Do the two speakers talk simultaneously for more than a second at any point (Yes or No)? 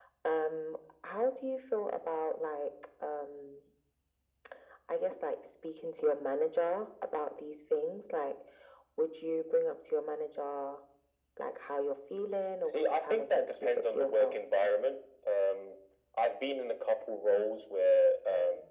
Yes